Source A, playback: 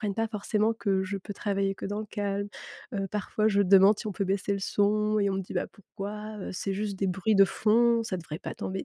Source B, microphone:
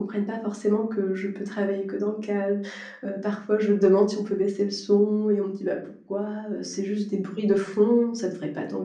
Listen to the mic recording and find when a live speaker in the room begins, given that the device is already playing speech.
none

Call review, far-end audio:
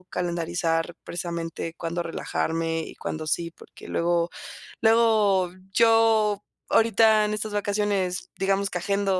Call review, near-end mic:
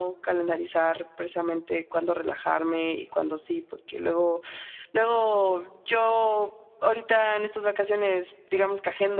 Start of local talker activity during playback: none

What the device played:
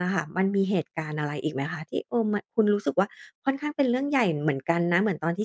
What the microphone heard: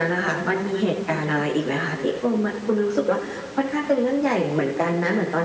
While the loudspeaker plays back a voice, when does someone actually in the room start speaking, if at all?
none

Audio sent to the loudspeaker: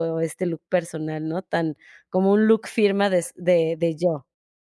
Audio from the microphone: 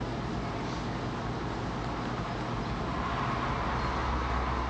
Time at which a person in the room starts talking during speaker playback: none

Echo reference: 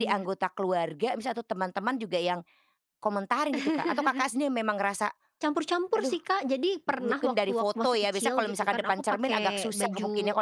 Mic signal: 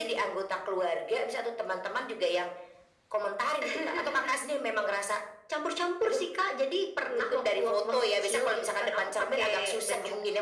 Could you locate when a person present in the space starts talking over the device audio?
none

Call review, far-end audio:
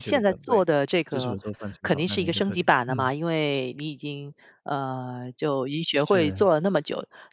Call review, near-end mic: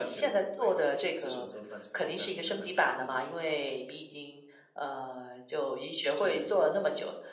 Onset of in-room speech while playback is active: none

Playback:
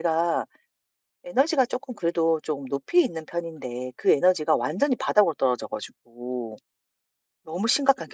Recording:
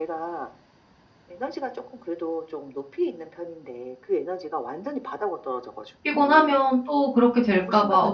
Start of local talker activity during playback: 6.0 s

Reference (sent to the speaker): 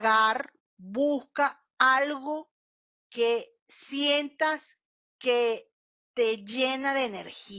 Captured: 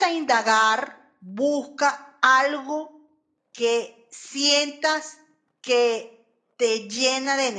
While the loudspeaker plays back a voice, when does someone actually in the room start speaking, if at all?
none

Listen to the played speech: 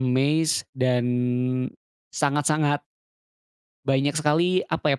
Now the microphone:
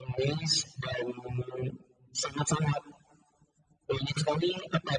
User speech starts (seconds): none

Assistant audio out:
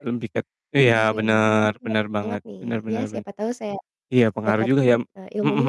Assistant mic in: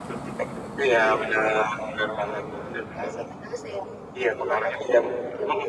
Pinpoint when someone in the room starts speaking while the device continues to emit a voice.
none

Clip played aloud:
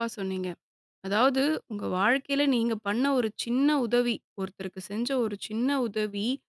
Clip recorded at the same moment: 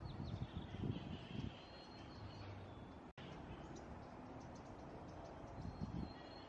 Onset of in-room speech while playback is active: none

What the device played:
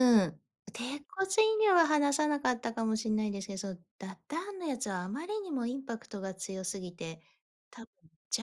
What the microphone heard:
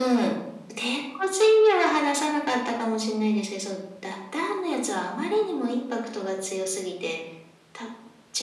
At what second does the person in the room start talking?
none

